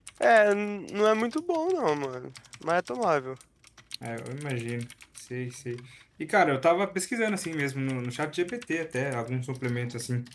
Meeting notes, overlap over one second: none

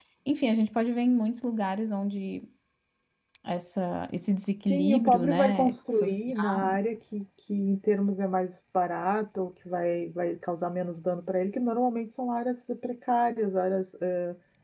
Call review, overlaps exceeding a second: present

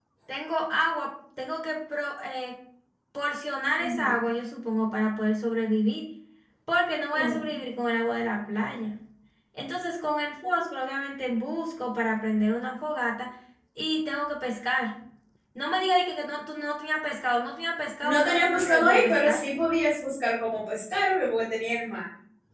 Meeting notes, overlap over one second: present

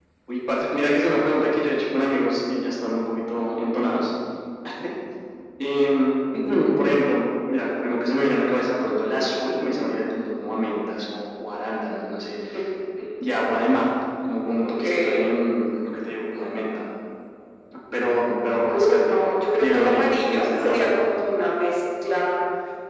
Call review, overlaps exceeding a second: present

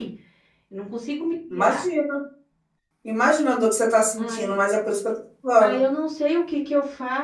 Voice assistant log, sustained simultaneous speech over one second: none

